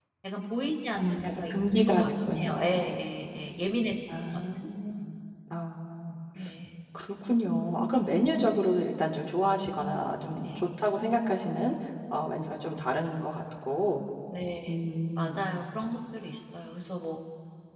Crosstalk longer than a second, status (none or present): present